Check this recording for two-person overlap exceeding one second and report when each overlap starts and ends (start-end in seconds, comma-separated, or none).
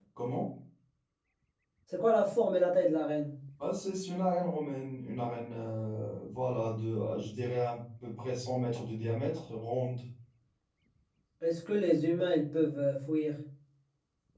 none